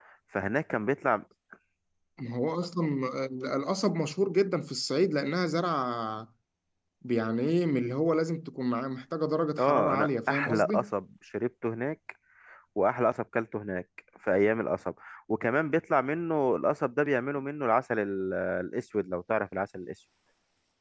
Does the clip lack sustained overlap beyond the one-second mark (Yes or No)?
No